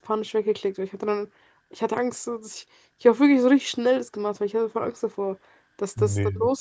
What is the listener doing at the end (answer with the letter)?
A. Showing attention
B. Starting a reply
A